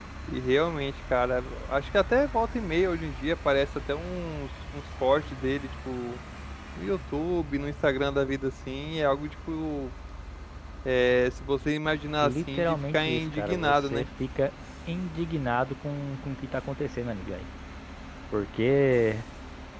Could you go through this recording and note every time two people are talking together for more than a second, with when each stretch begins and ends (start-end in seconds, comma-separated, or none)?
12.2-14.1